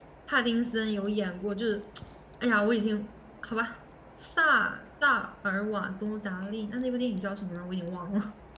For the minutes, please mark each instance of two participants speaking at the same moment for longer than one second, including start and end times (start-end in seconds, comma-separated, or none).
none